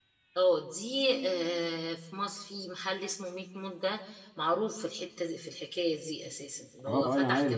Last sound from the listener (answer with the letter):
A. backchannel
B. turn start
B